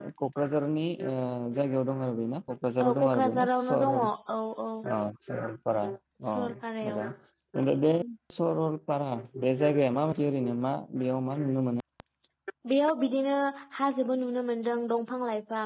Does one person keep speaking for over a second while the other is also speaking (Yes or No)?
Yes